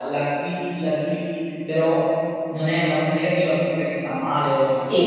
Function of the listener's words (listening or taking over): taking over